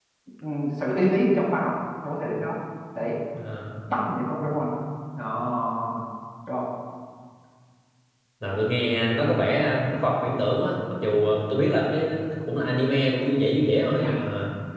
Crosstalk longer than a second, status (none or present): none